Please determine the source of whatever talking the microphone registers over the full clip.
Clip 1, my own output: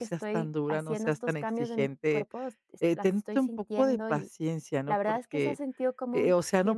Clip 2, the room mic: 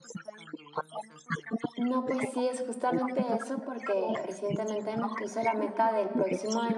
both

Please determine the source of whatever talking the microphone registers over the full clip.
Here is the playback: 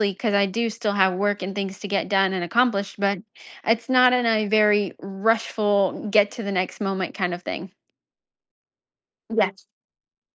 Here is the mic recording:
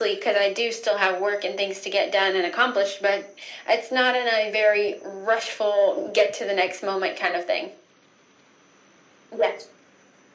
echo only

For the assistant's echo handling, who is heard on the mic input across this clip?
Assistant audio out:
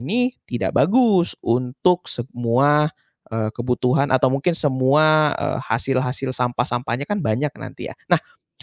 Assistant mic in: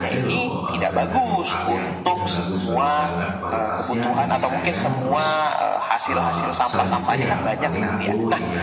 both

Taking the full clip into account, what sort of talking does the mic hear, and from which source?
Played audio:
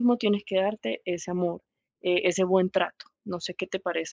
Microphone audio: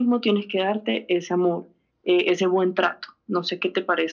echo only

